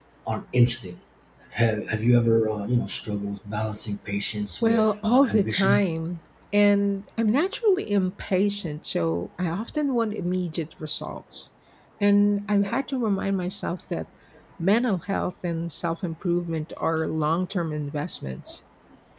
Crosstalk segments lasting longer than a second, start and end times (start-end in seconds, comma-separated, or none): 4.6-5.8